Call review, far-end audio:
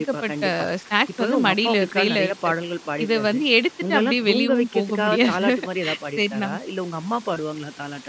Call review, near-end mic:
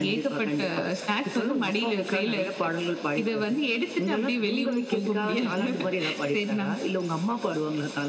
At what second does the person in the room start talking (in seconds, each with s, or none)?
5.2 s